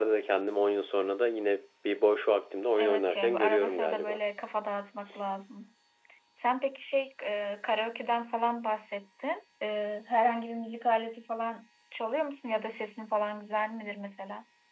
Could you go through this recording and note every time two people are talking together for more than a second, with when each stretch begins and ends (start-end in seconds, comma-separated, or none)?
2.8-4.2